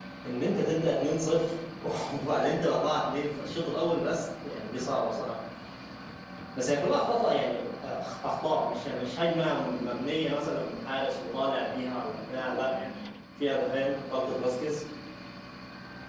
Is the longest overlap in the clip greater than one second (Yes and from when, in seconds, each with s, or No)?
No